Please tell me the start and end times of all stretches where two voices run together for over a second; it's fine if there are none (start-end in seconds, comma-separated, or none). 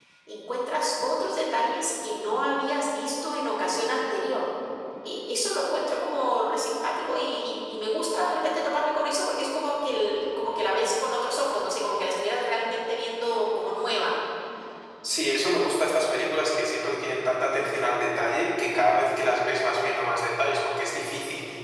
none